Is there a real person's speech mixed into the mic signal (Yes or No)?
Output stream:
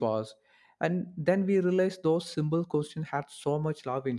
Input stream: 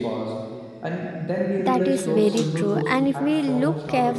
Yes